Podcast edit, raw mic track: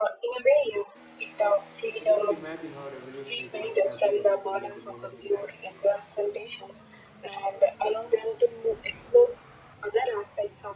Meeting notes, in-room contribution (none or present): present